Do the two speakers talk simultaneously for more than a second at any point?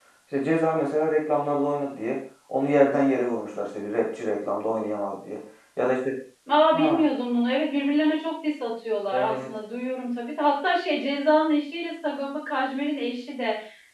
No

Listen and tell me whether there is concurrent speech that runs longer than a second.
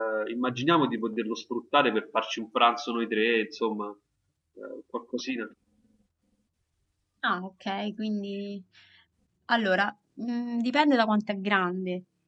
No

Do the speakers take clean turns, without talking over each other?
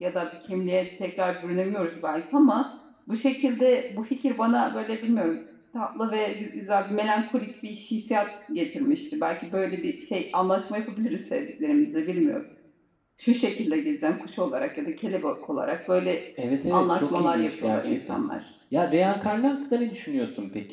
No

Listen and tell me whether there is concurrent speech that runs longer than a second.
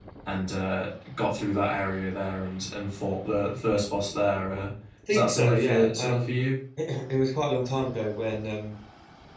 Yes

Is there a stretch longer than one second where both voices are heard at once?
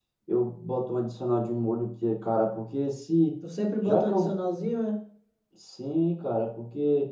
No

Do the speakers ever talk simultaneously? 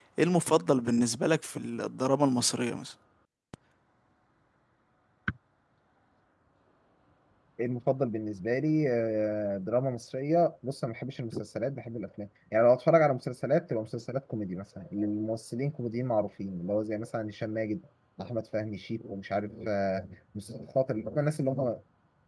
No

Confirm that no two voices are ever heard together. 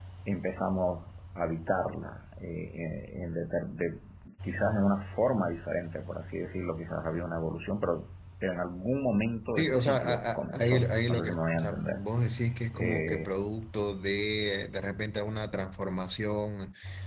No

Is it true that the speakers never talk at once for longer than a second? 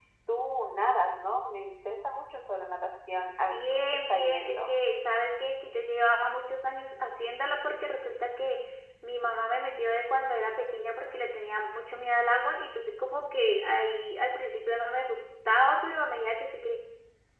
No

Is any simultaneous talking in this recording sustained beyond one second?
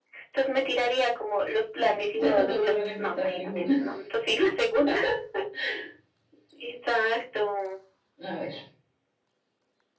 Yes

